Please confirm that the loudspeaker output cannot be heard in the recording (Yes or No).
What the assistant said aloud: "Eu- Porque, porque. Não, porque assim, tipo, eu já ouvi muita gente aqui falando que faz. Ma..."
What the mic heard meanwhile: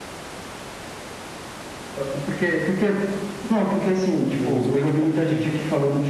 No